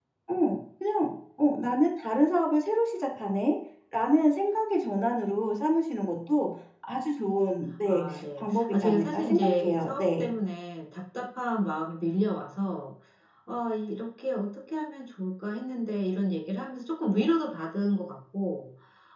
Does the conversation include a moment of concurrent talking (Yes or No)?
Yes